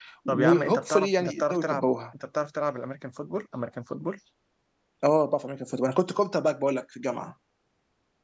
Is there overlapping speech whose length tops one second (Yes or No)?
Yes